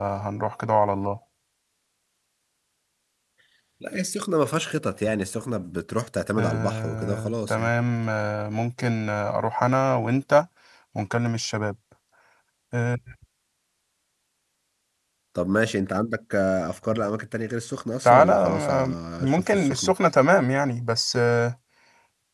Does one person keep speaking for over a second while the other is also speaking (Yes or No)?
Yes